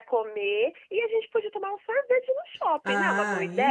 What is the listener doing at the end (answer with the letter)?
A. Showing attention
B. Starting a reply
B